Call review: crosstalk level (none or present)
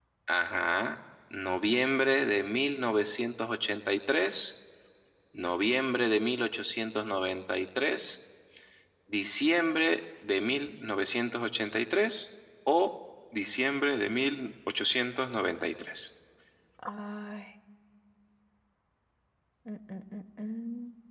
none